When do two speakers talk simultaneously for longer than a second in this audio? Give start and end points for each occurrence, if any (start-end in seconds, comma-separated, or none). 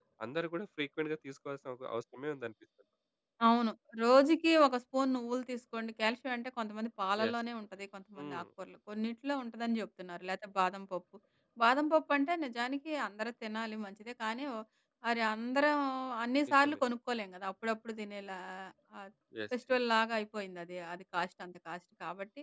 none